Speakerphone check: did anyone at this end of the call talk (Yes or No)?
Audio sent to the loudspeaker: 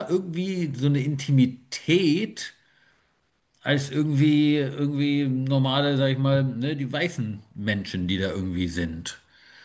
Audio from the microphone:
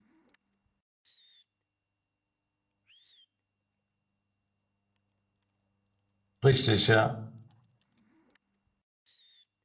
Yes